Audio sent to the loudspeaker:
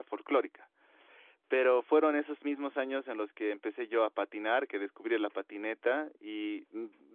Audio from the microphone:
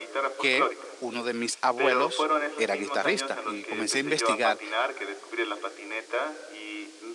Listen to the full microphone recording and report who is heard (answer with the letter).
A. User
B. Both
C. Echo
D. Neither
B